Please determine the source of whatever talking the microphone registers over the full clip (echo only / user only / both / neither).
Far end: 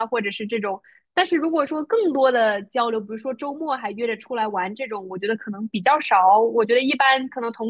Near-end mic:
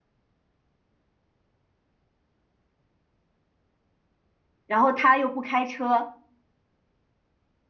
user only